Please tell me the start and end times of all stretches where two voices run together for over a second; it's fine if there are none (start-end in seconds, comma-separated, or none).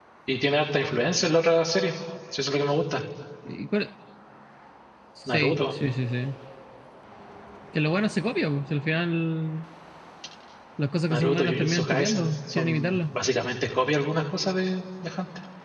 11.1-13.0